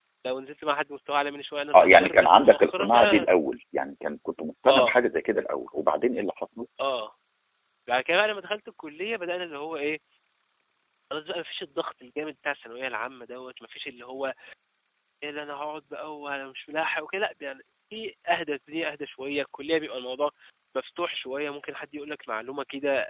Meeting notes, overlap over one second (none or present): present